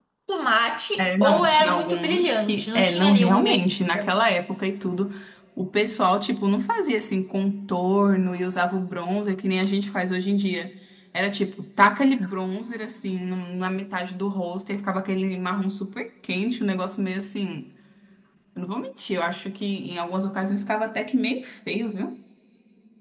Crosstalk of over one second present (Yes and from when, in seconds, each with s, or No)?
Yes, from 1.0 s